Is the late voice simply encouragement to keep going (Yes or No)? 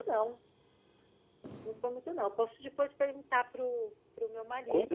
No